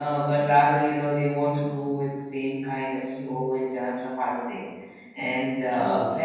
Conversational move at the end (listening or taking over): listening